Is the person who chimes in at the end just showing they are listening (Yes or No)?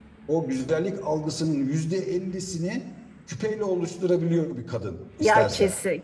No